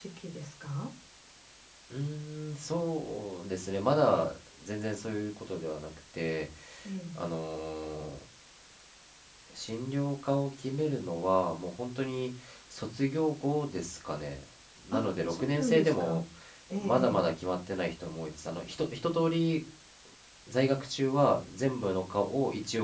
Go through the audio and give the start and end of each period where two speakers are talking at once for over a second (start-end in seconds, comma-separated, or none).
14.9-16.2